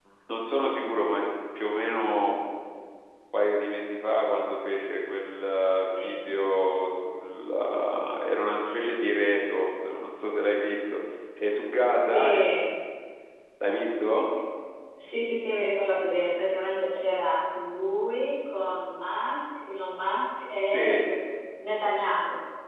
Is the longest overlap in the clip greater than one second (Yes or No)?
No